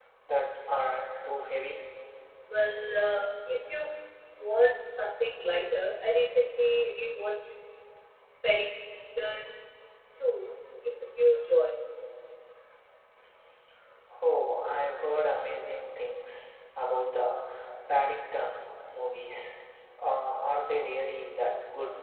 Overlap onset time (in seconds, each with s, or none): none